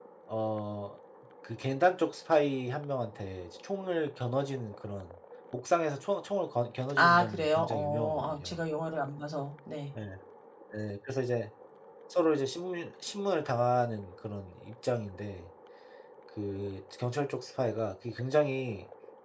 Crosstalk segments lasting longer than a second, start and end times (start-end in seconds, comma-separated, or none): 7.0-8.6